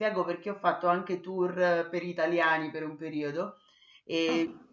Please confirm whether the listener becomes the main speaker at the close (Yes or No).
No